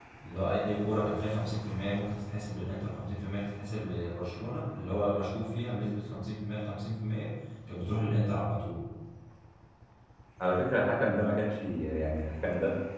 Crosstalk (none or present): none